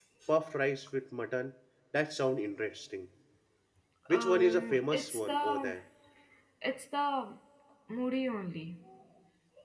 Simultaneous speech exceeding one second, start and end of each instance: 4.1-5.8

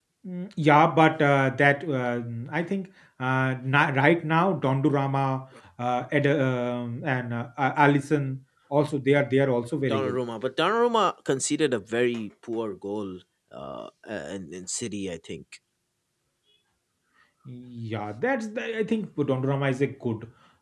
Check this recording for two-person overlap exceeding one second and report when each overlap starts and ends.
none

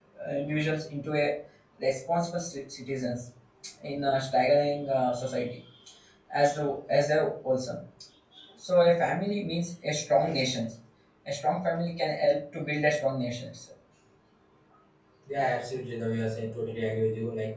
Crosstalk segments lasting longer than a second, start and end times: none

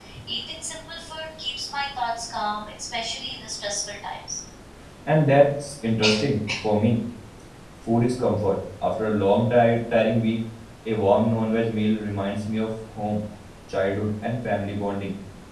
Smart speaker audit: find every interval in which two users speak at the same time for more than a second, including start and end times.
none

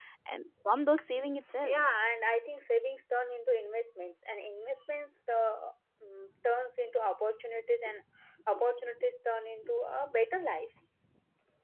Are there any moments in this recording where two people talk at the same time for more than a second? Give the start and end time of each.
none

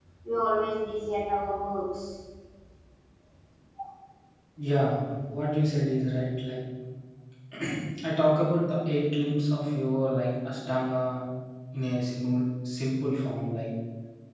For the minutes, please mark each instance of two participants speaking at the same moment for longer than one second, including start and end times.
none

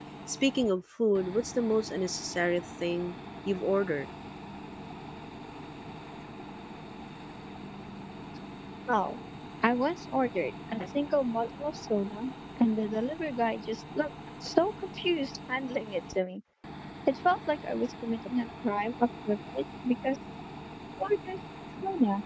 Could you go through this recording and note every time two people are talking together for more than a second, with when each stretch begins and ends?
none

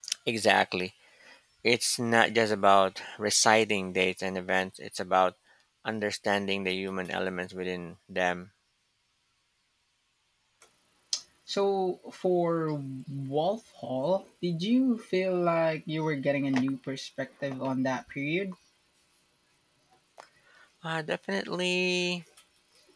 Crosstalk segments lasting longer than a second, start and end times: none

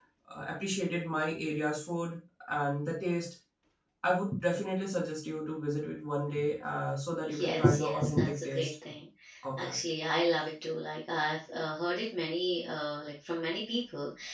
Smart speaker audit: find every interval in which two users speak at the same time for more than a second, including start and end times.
7.3-8.7

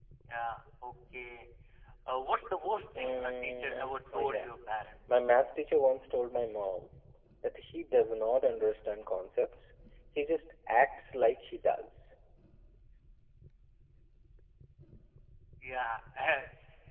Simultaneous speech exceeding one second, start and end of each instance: 3.0-4.5

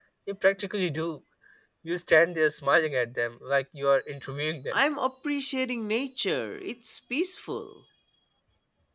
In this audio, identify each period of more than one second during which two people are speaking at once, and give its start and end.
none

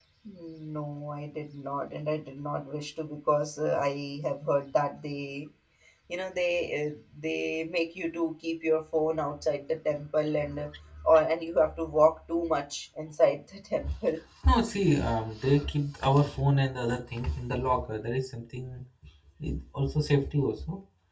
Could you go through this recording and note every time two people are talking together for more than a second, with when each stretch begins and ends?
none

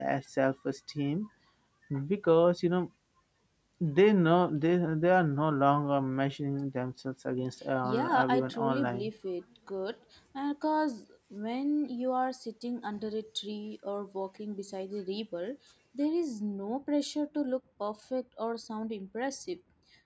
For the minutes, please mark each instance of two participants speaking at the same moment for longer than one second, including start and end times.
7.8-9.1

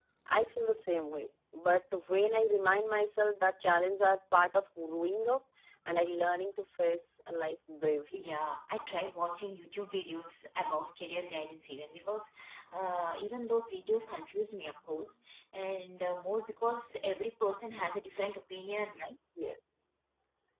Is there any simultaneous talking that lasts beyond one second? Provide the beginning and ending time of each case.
none

